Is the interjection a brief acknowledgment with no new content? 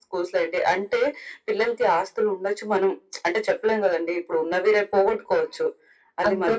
Yes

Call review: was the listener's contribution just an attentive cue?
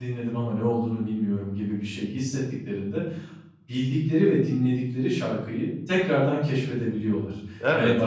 Yes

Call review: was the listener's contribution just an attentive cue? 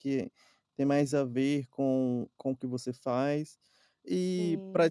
Yes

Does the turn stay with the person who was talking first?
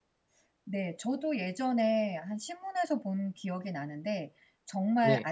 Yes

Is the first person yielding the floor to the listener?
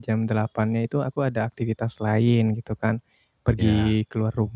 No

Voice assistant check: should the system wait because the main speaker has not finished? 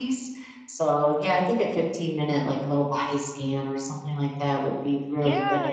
No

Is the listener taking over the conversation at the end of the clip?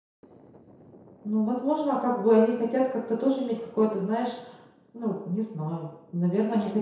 No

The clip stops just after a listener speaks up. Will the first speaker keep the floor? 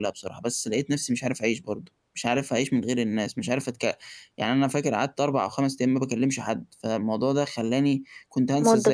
Yes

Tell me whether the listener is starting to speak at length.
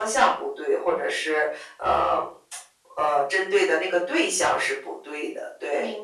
Yes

